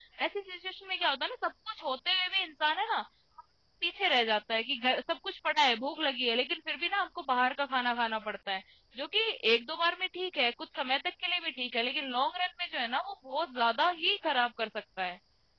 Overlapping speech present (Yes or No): No